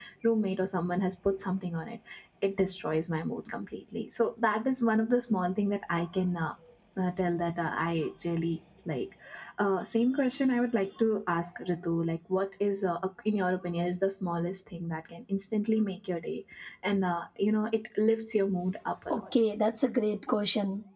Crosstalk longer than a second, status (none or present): none